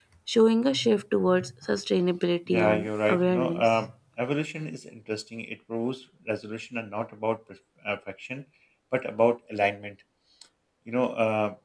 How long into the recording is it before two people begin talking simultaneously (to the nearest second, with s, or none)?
2 s